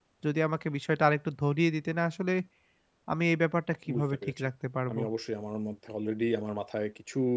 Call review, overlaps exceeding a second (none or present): none